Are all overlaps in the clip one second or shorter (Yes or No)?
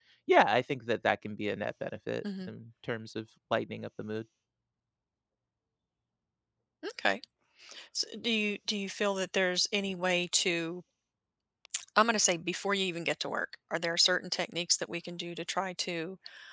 Yes